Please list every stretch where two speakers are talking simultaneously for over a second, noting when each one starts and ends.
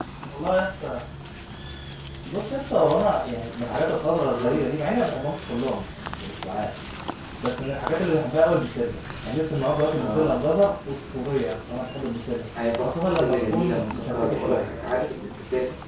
12.8-14.7

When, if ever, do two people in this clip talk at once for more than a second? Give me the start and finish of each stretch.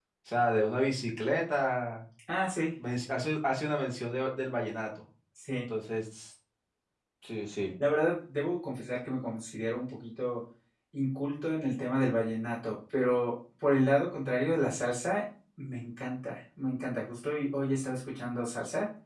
none

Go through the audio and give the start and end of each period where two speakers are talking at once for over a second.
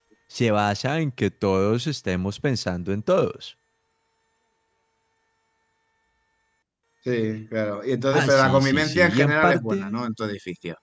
8.1-10.0

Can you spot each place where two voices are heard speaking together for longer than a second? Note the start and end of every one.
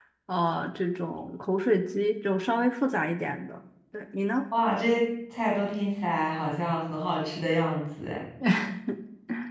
none

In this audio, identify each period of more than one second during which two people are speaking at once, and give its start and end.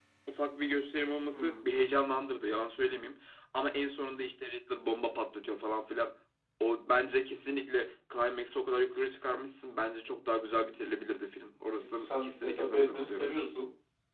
12.0-13.3

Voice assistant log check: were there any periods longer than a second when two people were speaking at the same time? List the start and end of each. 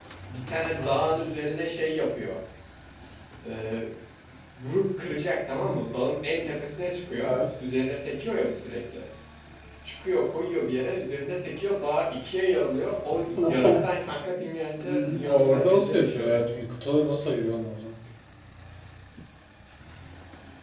14.8-16.4

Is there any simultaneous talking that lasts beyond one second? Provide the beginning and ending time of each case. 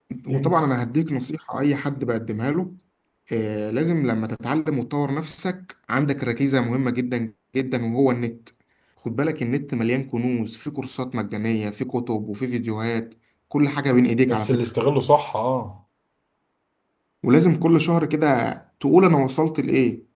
none

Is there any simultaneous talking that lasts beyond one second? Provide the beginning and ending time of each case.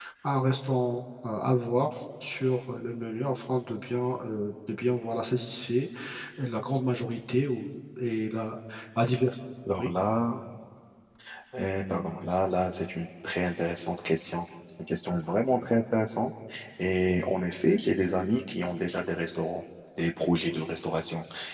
none

